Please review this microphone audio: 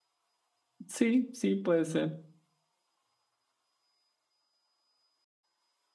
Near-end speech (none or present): present